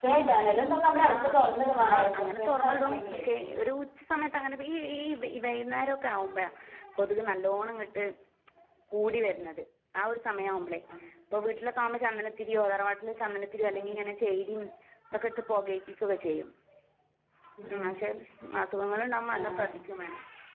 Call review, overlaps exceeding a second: present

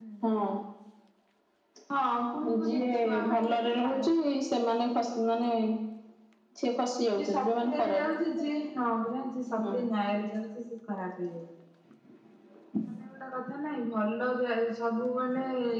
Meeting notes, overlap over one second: present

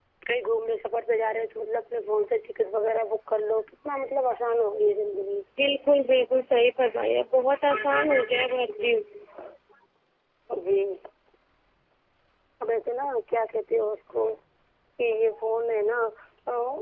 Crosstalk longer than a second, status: none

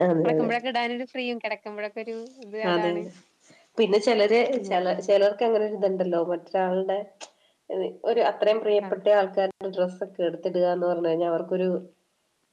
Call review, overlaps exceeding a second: none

